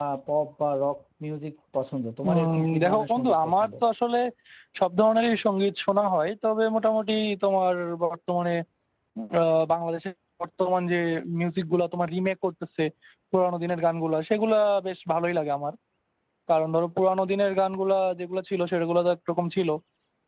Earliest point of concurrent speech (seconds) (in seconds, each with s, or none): 2.2 s